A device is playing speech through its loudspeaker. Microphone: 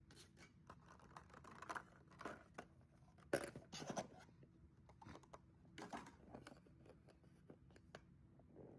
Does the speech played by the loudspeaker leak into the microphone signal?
No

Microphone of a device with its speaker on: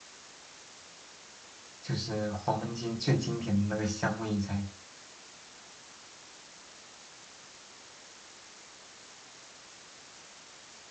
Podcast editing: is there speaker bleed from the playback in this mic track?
No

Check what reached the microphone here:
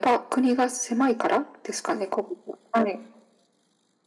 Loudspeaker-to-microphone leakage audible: Yes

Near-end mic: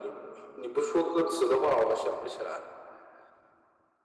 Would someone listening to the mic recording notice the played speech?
Yes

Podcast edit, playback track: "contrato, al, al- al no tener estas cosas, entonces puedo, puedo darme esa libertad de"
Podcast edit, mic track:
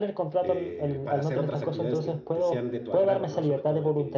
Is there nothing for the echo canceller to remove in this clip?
No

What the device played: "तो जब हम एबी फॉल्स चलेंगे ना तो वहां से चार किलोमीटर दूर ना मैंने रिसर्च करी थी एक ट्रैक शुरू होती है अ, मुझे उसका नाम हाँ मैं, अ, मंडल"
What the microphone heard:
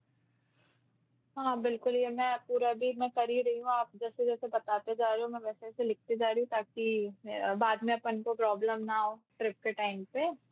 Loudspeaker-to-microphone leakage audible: No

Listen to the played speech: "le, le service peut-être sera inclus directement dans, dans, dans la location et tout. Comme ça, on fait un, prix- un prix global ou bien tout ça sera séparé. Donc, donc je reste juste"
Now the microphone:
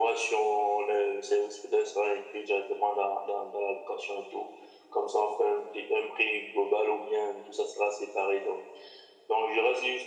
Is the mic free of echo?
No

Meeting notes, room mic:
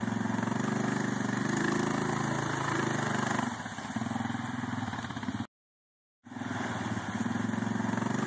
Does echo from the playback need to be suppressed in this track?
No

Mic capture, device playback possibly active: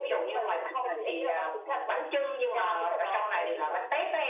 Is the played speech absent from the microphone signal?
No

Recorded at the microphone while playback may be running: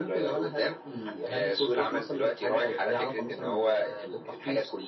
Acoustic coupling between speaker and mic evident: Yes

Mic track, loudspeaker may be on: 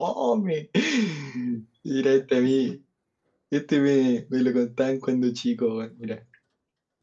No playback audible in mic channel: Yes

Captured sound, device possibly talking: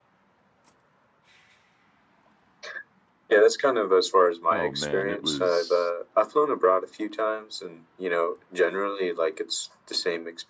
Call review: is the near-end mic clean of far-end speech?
No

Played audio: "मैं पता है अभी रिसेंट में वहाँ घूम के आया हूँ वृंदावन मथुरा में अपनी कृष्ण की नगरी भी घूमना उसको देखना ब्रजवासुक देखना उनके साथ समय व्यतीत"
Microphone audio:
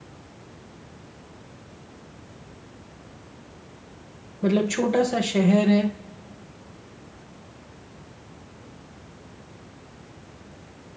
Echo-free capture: Yes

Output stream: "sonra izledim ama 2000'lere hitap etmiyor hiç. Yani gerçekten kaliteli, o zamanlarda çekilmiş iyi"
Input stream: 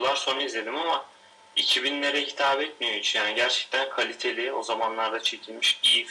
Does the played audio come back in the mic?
Yes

